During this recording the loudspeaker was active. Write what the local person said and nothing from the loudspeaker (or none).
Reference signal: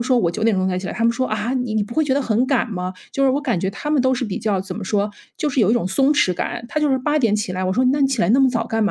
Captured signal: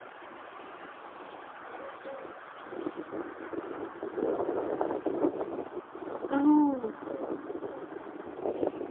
哦。